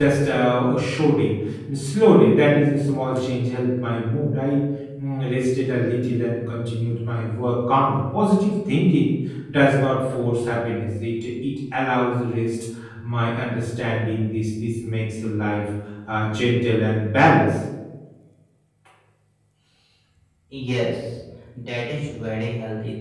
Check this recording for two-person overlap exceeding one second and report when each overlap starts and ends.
none

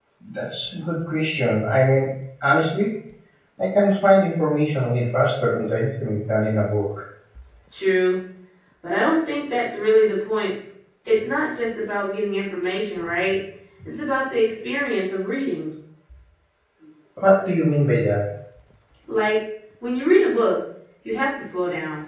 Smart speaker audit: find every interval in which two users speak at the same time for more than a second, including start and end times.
none

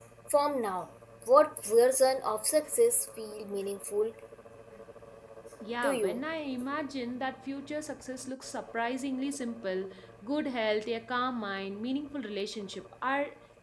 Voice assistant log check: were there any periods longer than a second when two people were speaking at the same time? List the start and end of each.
none

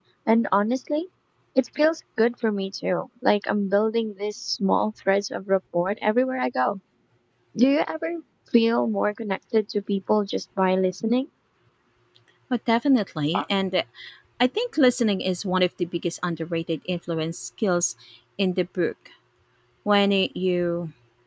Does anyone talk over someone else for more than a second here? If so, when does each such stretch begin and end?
none

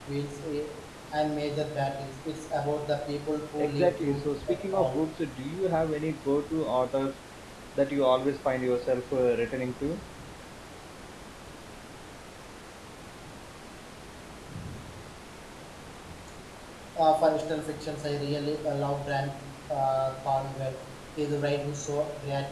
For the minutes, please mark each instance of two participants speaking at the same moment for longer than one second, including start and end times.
3.6-5.0

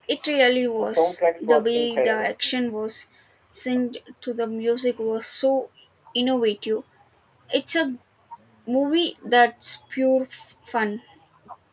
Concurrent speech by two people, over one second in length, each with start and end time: 0.8-2.3

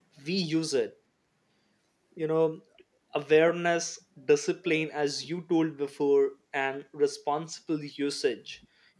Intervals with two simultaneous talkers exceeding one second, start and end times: none

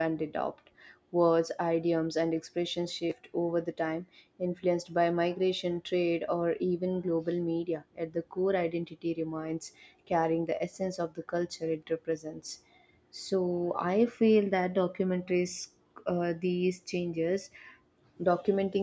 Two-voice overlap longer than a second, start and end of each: none

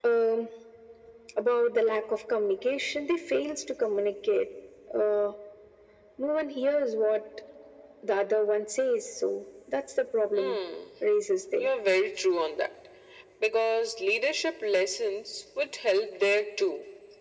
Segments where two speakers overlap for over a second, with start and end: none

